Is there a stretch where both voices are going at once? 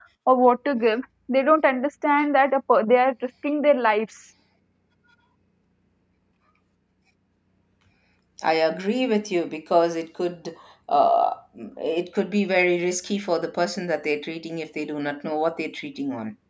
No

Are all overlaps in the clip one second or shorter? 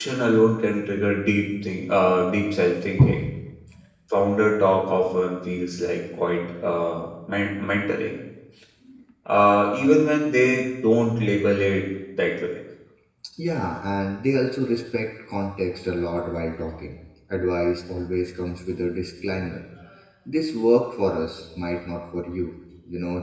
Yes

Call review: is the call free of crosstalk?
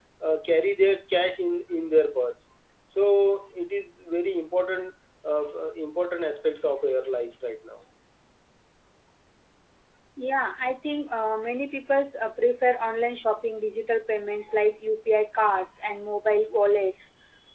Yes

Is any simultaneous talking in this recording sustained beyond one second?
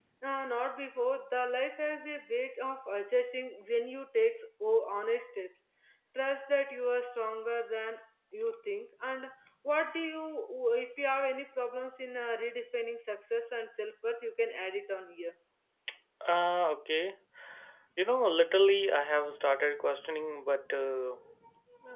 No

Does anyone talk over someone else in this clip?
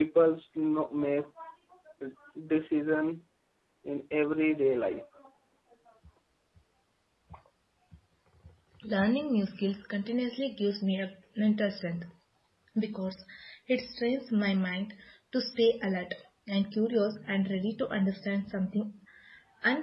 No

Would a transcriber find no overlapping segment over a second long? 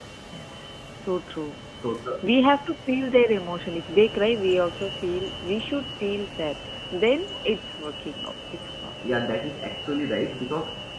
Yes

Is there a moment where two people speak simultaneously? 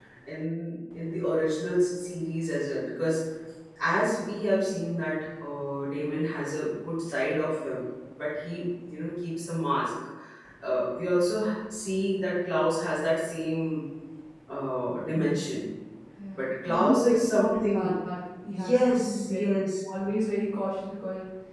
Yes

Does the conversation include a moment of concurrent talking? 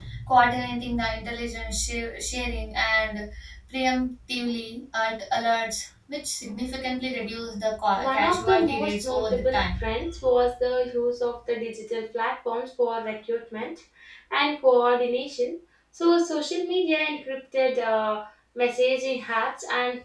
Yes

